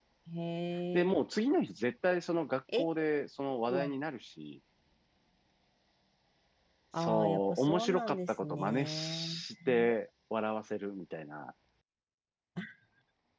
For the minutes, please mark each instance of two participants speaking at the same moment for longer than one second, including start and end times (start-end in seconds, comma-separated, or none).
7.0-9.3